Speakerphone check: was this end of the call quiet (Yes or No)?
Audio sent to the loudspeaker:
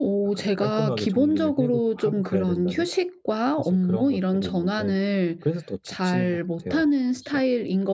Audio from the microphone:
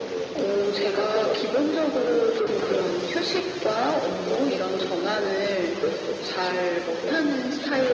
Yes